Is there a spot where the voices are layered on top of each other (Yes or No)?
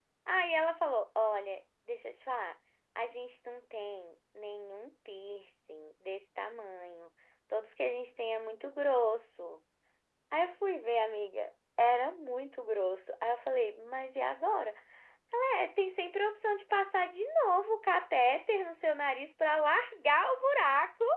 No